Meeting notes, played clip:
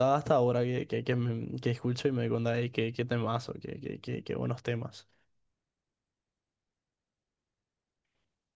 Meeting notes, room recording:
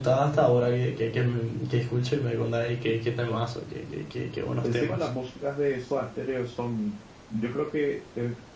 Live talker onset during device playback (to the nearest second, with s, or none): 5 s